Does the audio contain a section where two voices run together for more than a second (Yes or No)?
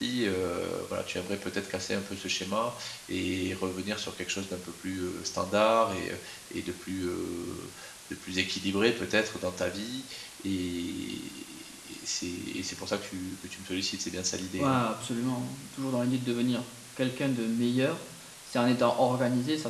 No